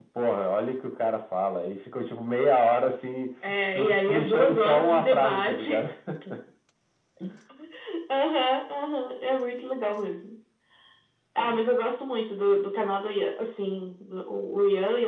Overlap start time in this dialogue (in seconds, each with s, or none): 3.4 s